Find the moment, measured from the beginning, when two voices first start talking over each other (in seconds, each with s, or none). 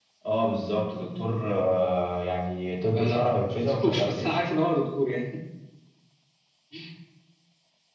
2.9 s